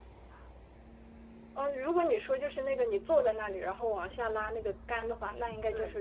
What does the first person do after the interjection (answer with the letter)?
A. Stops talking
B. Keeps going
B